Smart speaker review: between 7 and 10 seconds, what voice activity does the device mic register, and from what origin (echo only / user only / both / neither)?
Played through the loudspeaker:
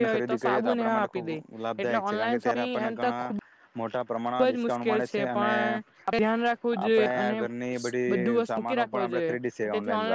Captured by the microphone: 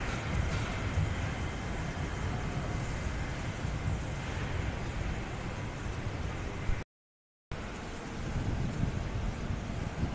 neither